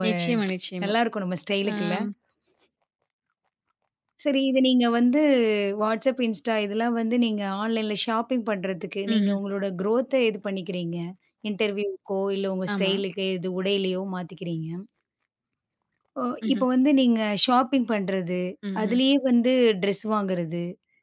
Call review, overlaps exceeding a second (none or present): none